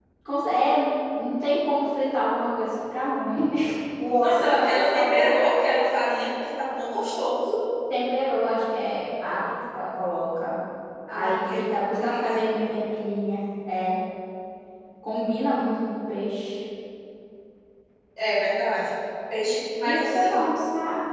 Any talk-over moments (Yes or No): Yes